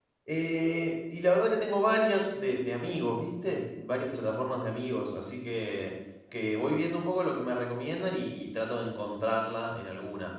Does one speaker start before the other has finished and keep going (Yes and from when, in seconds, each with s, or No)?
No